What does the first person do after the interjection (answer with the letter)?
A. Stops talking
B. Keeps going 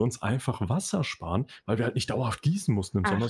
B